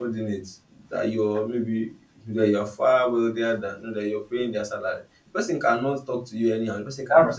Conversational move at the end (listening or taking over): listening